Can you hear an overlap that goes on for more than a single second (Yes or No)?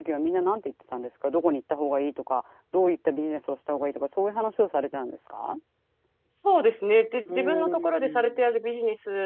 Yes